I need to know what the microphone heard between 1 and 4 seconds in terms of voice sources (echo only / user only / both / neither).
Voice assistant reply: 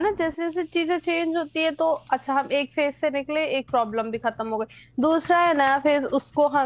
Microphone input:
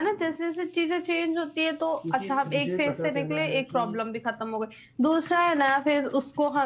both